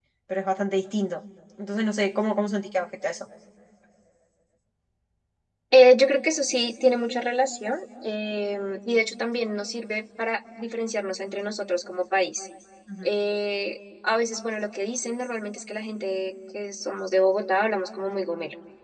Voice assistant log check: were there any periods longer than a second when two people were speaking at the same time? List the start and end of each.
none

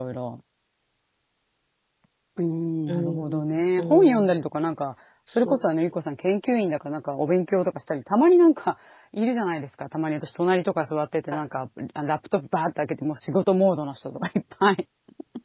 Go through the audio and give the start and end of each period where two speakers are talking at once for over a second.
2.9-4.3

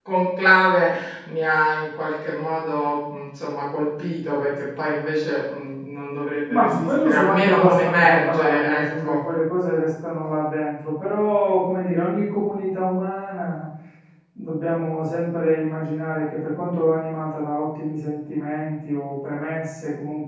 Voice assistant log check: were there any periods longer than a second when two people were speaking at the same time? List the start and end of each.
6.5-9.2

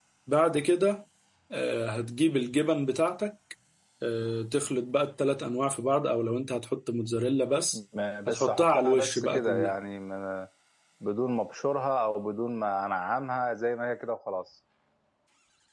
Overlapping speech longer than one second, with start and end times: 8.3-9.8

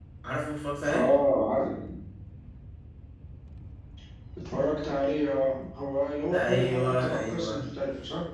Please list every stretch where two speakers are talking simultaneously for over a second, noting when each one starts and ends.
6.3-7.7

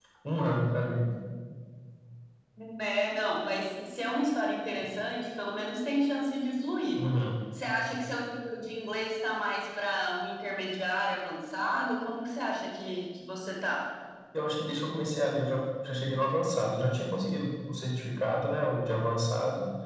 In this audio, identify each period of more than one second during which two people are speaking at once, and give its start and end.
none

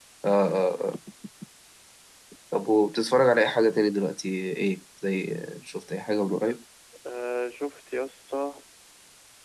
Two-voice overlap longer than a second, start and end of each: none

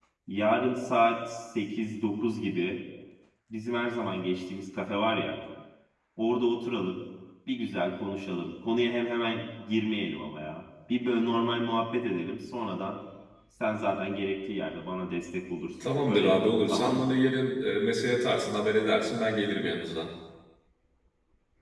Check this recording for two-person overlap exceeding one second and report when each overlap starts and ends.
15.8-17.2

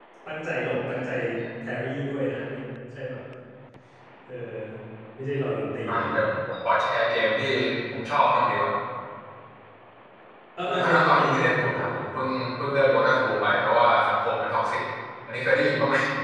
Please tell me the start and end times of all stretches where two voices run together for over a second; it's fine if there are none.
10.7-11.9

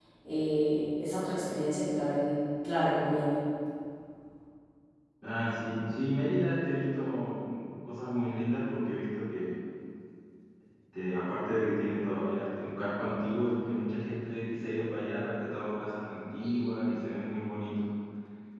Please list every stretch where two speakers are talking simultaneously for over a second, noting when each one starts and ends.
none

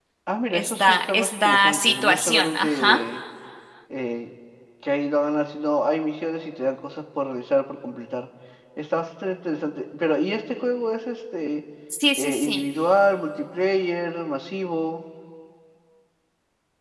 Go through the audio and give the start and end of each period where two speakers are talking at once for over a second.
0.5-3.0

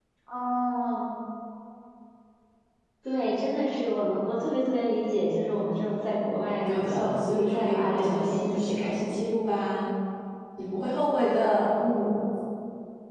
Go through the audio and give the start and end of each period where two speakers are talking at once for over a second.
6.7-8.8

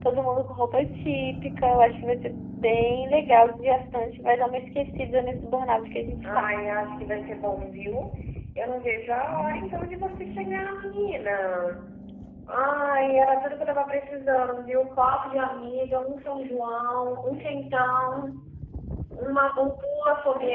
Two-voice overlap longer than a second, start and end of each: none

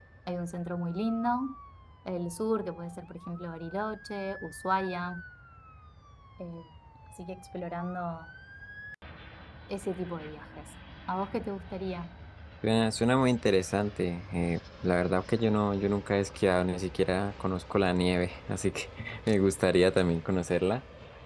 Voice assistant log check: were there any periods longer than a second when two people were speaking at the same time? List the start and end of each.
none

